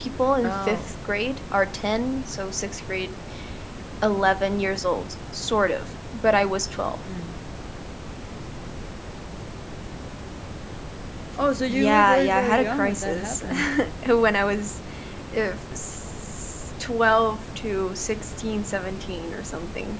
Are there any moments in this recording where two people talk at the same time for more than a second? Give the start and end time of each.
11.7-13.4

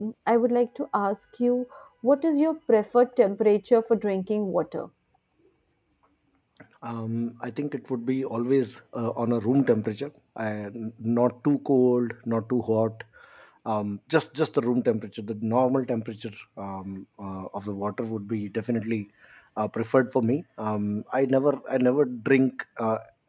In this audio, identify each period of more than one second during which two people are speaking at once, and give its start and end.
none

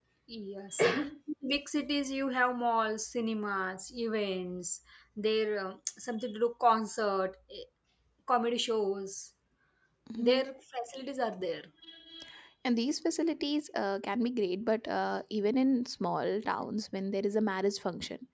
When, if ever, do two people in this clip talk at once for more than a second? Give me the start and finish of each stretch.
none

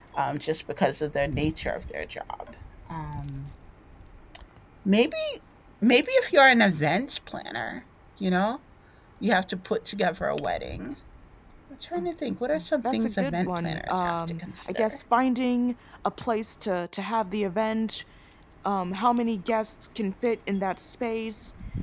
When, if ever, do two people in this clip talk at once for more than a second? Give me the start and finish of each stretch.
12.8-15.0

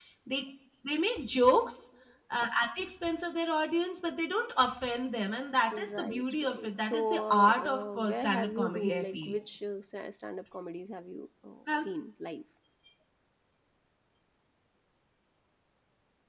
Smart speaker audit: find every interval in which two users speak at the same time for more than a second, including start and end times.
5.7-9.3

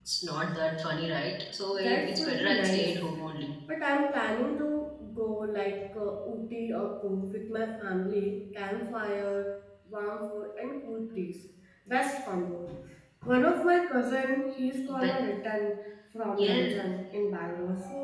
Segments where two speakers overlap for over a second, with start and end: 1.7-3.0

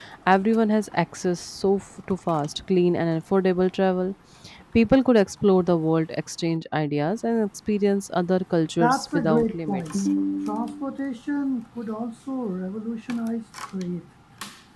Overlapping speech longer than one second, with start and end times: 8.8-10.1

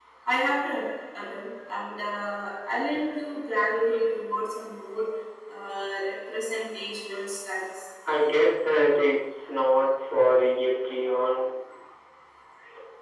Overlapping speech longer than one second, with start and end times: none

